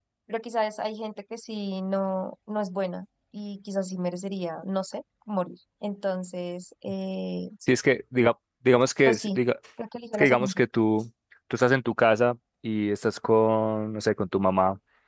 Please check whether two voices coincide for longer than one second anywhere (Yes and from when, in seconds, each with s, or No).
No